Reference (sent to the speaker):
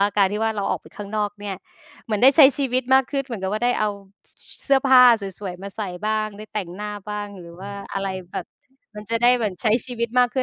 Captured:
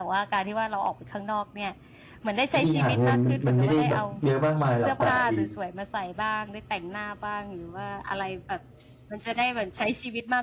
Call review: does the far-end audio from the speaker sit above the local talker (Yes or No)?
No